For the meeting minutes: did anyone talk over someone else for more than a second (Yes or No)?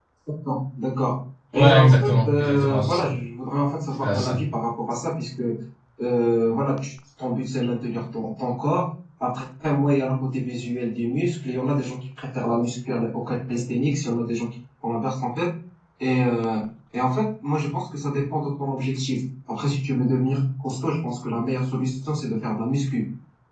Yes